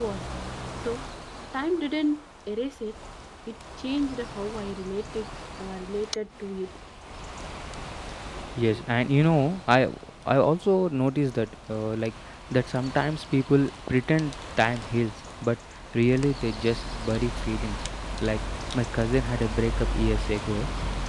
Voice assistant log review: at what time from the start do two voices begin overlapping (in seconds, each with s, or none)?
none